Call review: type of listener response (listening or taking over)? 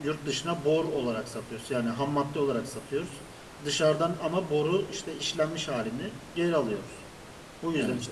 listening